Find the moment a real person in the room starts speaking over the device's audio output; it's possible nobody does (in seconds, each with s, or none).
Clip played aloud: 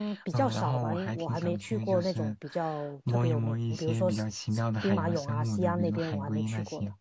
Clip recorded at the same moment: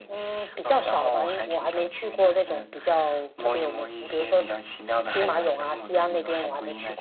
none